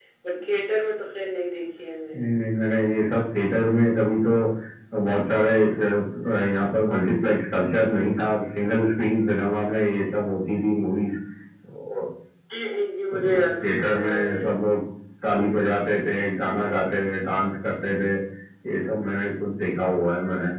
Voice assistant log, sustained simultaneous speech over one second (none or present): present